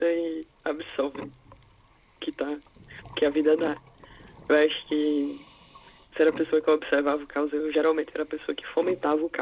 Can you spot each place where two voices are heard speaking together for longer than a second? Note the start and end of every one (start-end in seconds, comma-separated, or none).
none